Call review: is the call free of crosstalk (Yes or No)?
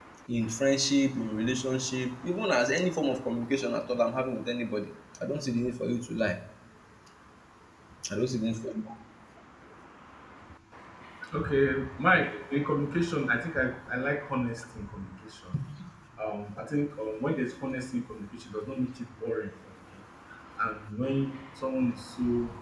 Yes